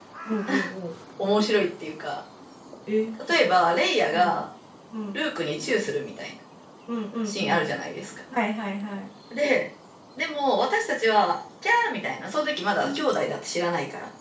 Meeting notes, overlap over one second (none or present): none